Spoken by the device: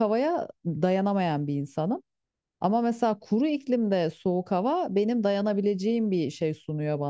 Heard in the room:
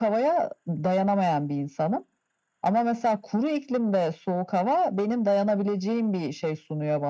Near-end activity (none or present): none